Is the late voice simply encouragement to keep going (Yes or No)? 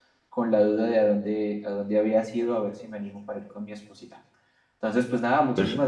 Yes